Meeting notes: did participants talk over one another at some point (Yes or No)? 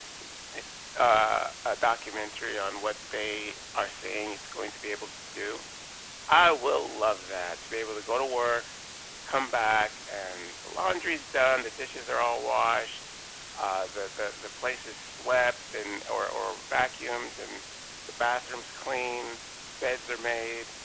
No